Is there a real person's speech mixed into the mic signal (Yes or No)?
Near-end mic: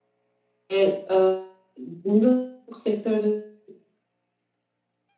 Yes